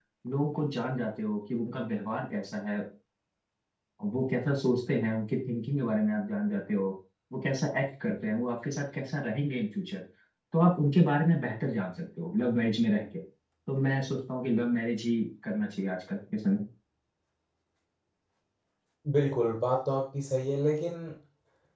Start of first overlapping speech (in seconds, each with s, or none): none